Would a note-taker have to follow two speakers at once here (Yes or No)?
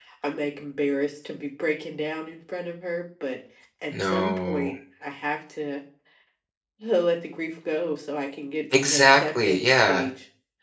Yes